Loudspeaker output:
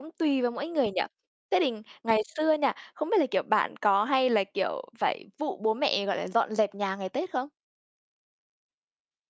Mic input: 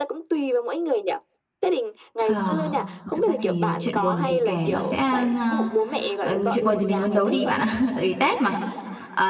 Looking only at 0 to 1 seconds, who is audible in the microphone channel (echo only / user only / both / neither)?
echo only